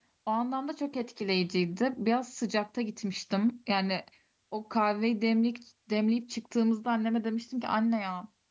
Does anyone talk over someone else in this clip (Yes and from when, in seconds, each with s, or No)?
No